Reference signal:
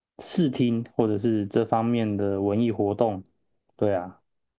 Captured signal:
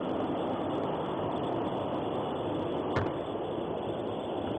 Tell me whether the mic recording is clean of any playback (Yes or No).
Yes